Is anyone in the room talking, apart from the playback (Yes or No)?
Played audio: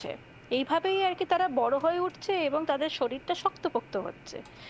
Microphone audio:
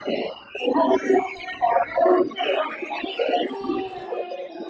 Yes